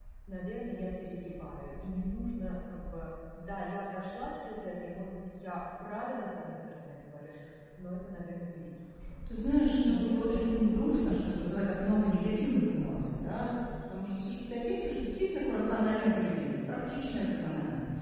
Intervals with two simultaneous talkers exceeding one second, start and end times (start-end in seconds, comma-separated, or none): 9.8-11.1